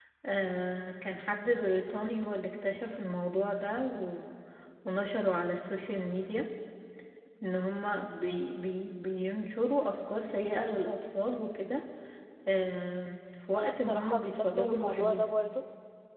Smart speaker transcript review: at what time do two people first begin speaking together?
14 s

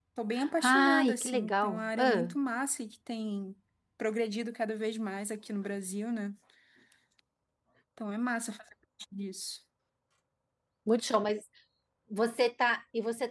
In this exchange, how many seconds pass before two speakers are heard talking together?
1 s

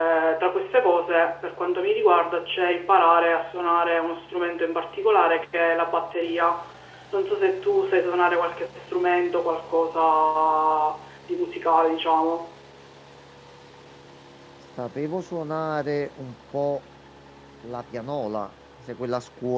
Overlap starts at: none

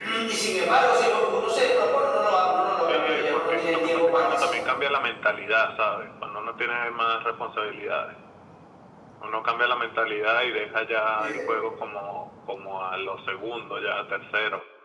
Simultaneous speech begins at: 3 s

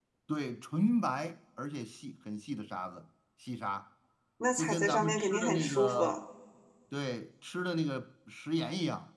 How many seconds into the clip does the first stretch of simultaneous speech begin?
5 s

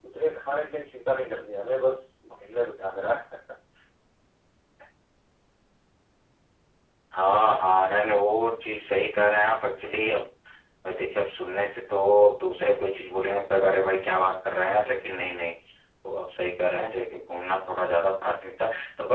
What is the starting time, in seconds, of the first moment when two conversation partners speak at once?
none

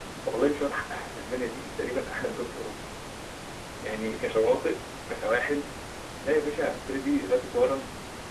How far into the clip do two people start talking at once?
none

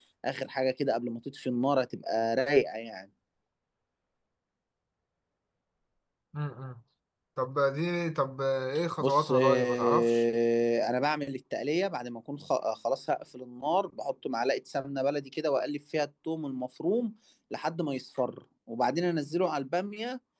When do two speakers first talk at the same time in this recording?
9 s

